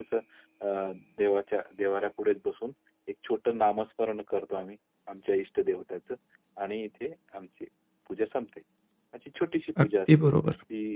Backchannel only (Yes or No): Yes